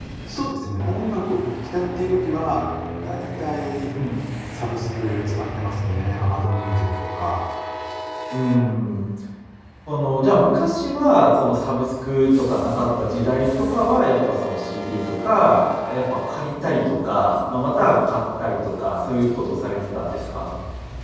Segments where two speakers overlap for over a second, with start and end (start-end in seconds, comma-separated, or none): none